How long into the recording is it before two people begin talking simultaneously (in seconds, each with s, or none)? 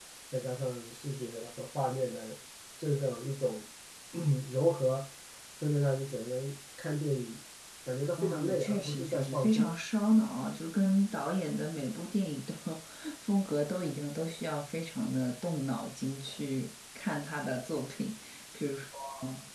8.2 s